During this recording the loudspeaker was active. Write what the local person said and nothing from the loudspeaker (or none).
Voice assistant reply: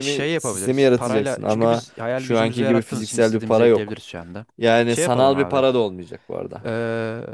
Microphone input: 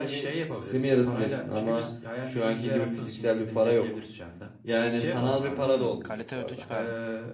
Hmm, kalite ödünç verme.